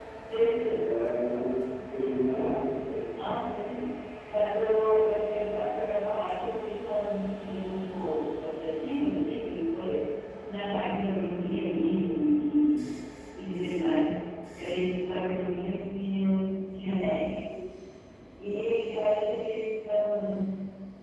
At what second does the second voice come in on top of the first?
none

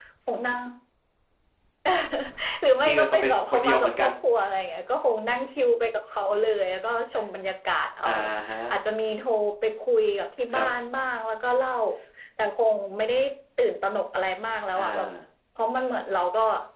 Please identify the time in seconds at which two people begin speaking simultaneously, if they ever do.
2.8 s

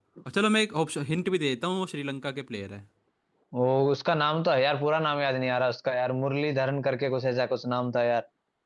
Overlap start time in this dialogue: none

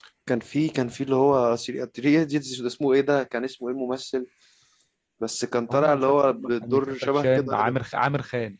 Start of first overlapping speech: 5.7 s

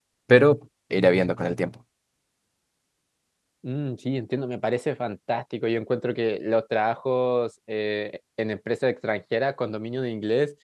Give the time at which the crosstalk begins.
none

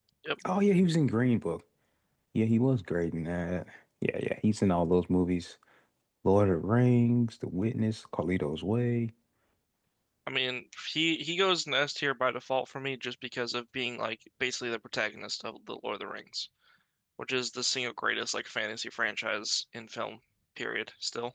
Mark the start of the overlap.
none

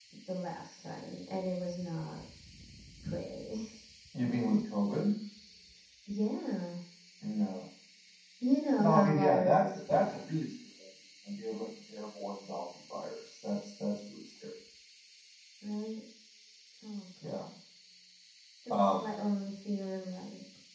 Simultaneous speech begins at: 8.8 s

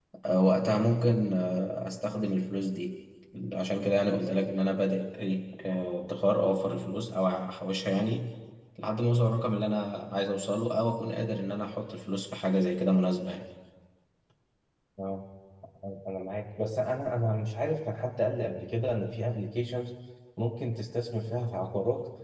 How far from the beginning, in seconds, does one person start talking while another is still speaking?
none

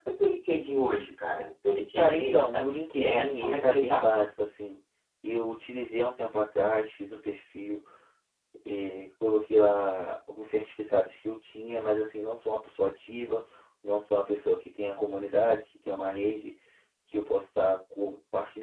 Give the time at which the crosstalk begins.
1.9 s

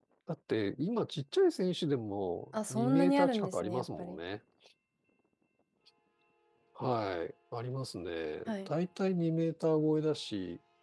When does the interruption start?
2.7 s

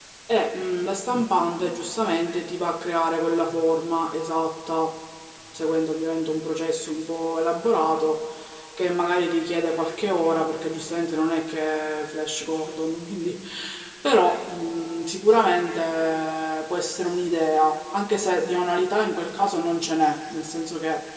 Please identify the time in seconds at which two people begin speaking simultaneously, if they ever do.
none

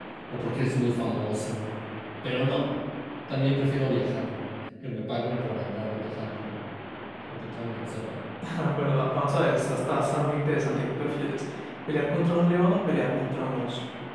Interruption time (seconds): none

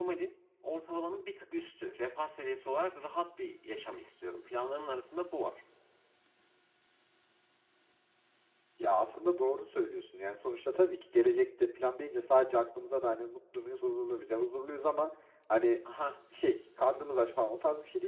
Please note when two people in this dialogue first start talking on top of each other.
none

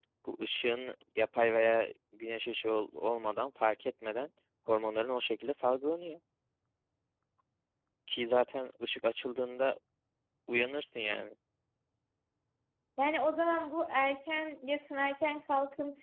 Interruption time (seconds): none

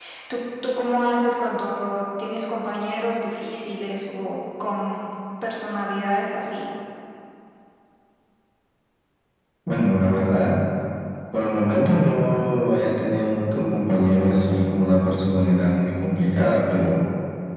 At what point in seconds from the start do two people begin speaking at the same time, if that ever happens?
none

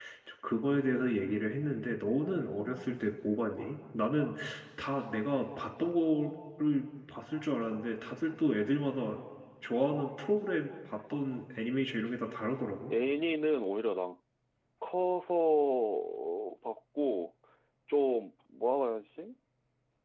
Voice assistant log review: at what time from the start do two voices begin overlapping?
none

